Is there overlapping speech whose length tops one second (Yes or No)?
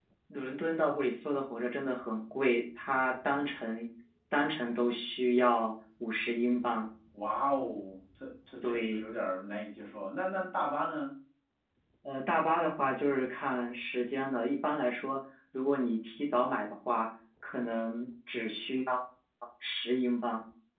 No